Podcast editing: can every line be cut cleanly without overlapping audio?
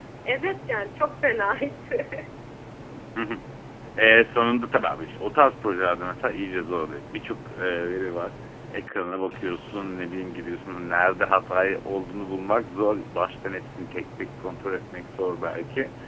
Yes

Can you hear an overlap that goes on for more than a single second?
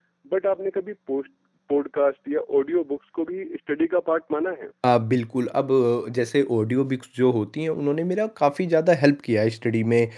No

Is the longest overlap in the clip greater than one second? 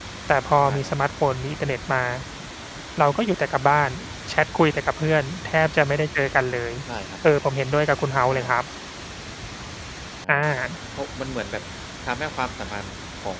No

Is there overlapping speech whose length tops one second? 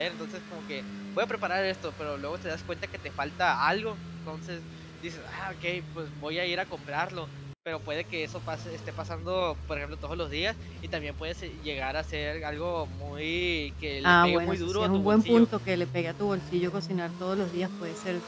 Yes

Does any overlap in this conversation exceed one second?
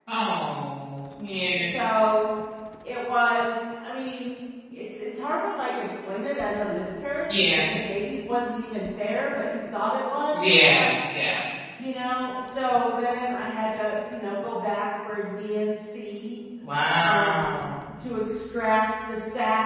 No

